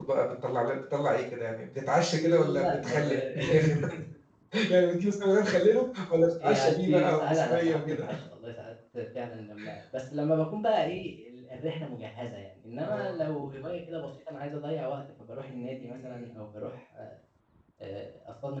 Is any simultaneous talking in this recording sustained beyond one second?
Yes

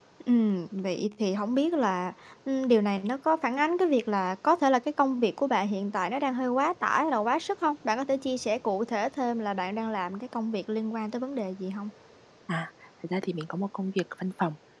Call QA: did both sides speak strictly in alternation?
Yes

